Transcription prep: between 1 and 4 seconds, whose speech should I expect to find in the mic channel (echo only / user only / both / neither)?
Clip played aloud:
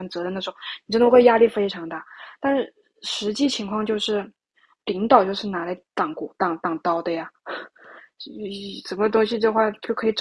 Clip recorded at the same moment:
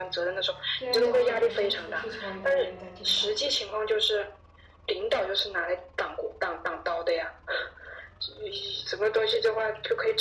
both